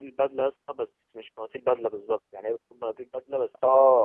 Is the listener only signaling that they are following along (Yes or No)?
No